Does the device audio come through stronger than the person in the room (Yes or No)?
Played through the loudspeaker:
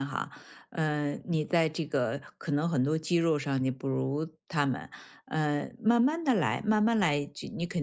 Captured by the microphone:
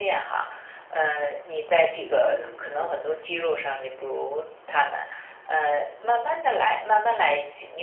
Yes